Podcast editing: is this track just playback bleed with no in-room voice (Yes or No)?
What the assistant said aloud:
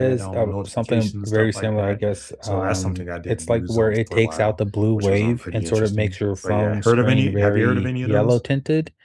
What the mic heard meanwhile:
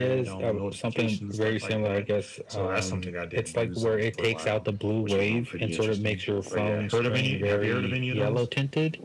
Yes